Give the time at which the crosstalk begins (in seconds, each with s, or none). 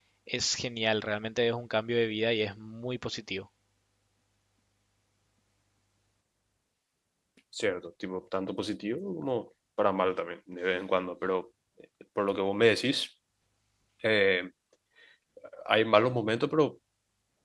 none